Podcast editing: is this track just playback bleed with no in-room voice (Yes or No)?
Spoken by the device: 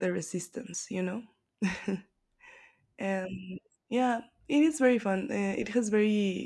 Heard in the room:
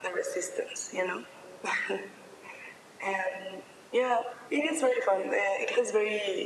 Yes